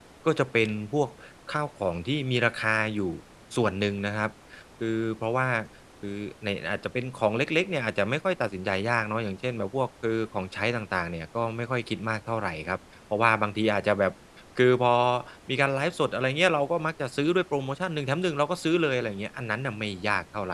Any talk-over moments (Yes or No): No